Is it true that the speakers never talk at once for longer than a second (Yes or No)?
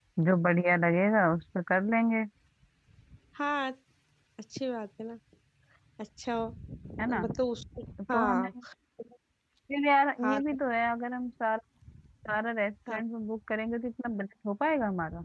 Yes